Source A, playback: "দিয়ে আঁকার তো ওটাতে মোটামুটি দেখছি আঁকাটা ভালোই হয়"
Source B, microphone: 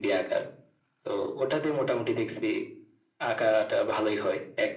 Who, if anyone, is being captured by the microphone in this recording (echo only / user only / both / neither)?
echo only